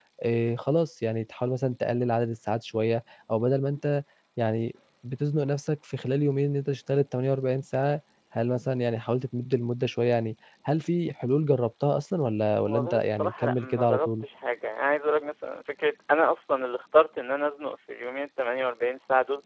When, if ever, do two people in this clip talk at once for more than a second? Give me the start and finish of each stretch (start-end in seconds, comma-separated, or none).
12.7-14.2